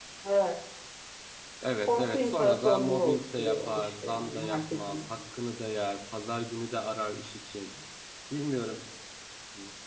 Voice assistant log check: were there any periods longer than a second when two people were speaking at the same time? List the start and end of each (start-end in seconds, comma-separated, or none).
1.8-5.0